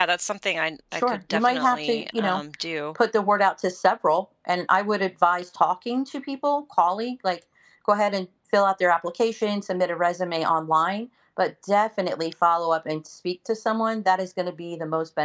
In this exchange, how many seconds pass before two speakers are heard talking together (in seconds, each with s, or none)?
0.9 s